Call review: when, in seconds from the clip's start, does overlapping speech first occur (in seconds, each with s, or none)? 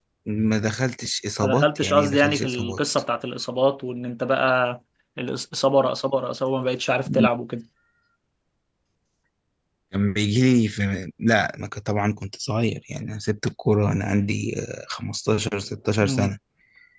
1.4 s